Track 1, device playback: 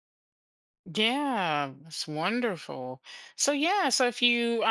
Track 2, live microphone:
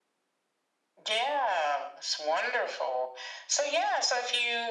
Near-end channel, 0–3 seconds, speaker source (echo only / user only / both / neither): echo only